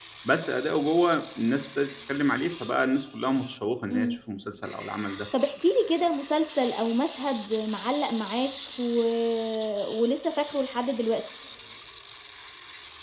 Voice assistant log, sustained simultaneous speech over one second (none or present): none